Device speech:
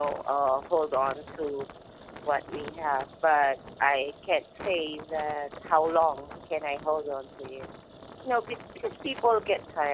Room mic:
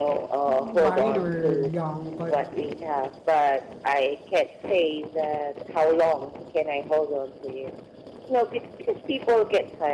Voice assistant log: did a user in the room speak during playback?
Yes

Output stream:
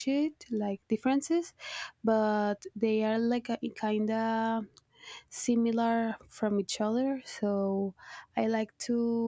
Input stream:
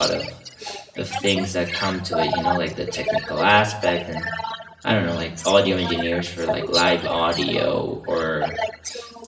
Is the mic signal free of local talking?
No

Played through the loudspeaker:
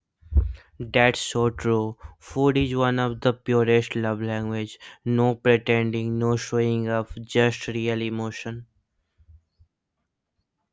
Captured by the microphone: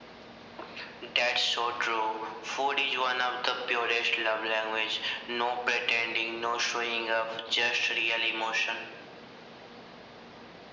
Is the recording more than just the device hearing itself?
No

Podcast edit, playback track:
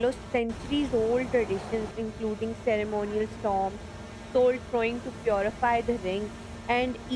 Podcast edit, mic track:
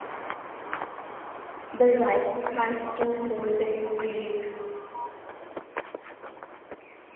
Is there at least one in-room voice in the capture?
Yes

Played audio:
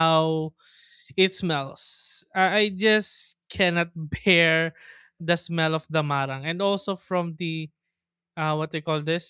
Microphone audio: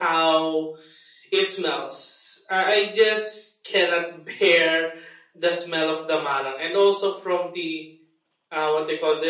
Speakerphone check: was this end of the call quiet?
Yes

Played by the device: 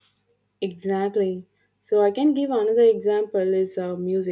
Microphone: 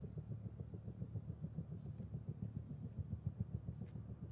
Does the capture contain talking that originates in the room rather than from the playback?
No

